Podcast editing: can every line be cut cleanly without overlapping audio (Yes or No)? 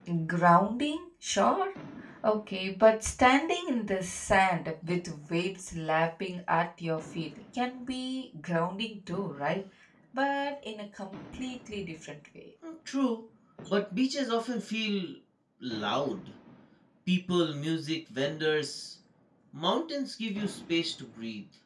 Yes